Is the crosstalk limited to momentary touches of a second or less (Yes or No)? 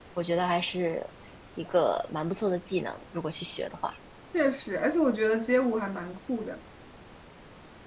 Yes